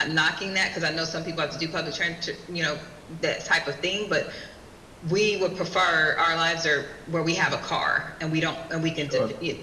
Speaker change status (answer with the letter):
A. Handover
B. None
A